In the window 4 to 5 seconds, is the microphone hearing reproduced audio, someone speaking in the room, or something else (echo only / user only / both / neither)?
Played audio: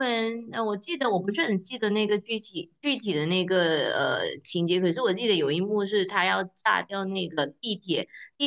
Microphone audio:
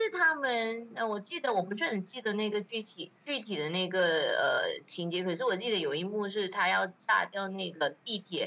echo only